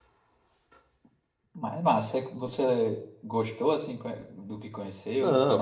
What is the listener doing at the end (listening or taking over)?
taking over